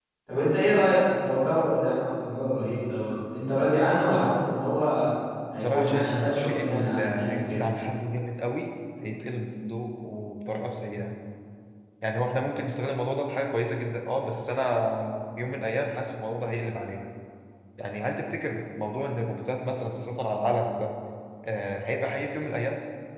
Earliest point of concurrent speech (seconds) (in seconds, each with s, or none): 5.6 s